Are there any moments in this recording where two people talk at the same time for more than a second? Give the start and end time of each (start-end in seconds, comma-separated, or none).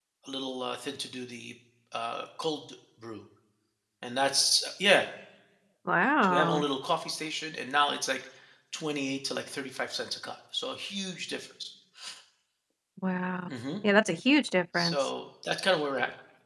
none